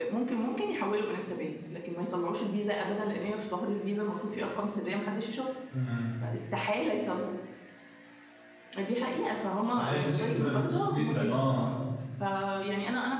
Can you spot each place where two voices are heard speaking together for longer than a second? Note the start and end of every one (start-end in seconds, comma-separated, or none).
9.6-11.7